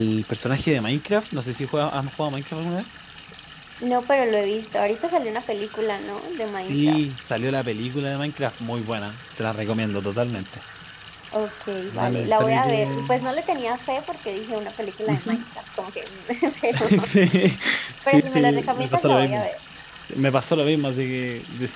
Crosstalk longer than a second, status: present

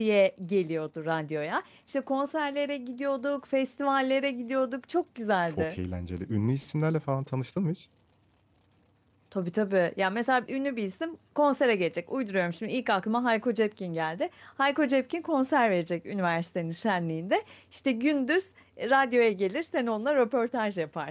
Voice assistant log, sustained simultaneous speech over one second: none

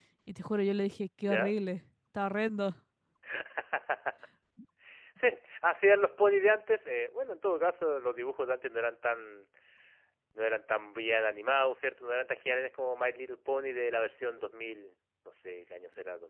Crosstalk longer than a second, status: none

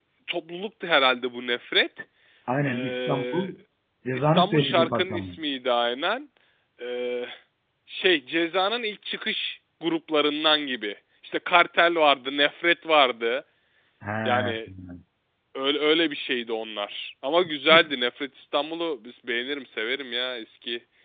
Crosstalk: present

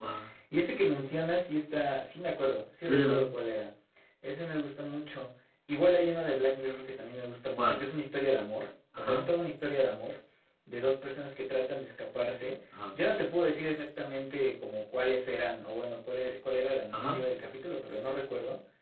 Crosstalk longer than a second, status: none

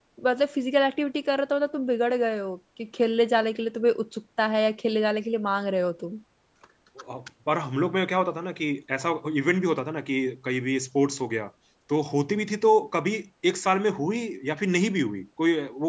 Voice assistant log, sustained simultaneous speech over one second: none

